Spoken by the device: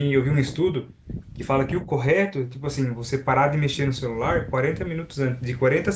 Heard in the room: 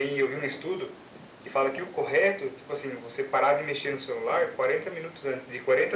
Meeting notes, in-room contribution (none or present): none